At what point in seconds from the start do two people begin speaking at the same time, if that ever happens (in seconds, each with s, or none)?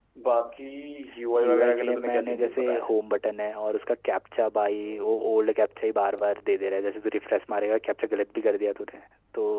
1.4 s